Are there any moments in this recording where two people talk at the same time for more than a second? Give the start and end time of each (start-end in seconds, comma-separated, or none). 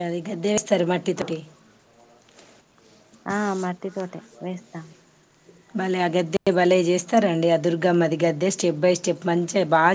none